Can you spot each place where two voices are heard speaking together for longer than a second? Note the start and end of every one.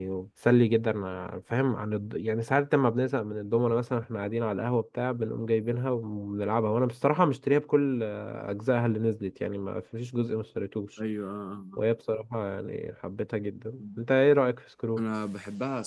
none

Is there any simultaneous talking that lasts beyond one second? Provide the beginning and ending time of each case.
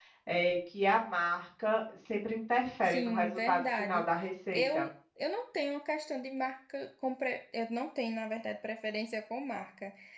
2.8-4.0

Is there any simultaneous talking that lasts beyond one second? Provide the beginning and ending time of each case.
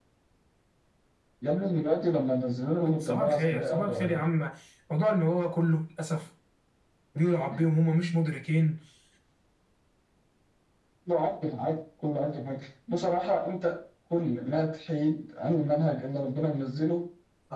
3.0-4.2

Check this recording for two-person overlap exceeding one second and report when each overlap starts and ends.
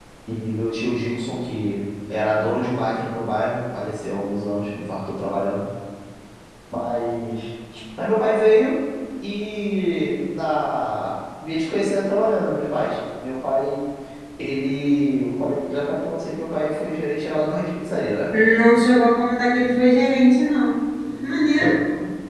none

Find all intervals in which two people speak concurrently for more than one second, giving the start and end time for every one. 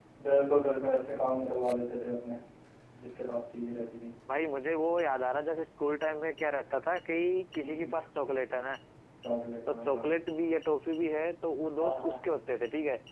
none

